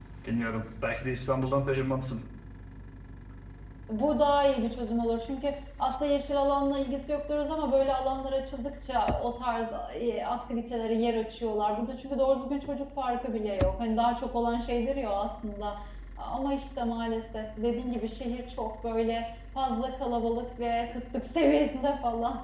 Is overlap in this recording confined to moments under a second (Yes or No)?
Yes